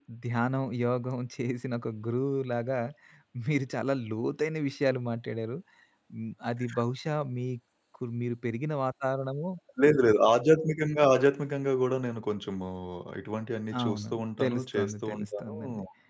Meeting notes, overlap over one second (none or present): present